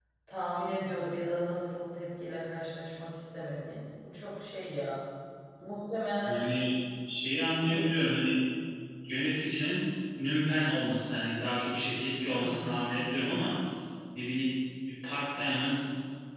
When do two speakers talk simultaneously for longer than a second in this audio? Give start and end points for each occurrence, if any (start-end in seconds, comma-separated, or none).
none